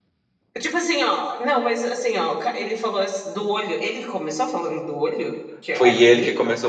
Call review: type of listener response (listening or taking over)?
taking over